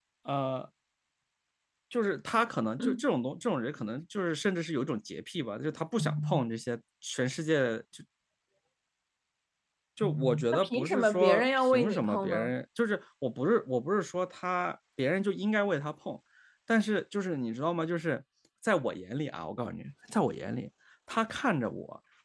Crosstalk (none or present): present